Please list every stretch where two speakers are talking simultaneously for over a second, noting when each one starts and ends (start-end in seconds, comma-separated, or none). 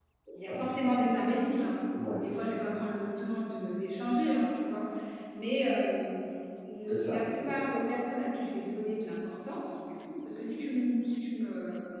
none